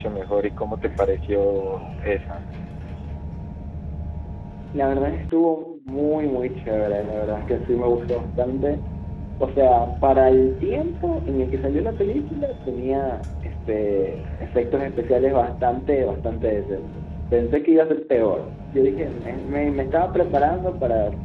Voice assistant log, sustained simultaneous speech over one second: none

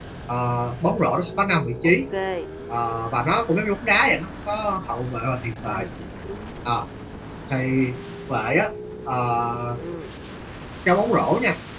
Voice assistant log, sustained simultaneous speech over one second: none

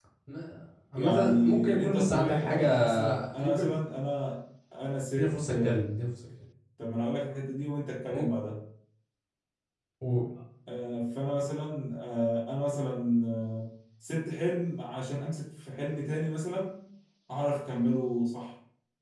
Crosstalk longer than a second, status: present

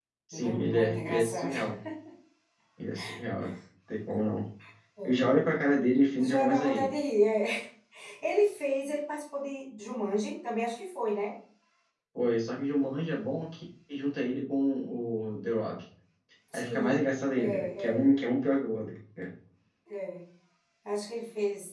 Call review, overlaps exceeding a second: present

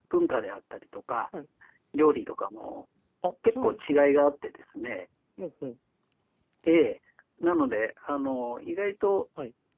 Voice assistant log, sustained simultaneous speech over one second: none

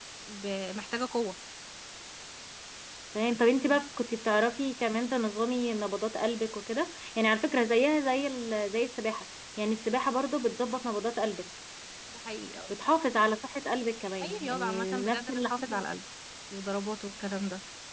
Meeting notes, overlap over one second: present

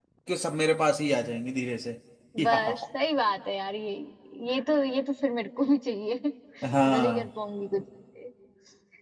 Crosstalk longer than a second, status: none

